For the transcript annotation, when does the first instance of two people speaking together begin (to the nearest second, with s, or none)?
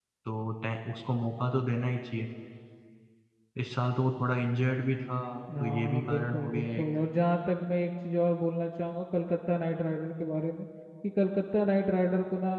6 s